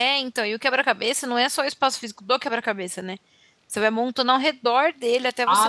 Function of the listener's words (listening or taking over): taking over